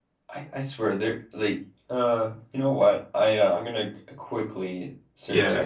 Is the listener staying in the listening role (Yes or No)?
No